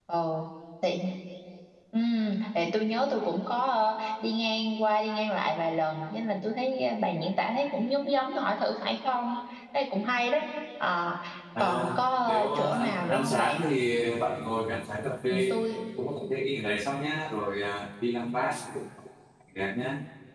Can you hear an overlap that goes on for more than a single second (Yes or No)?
Yes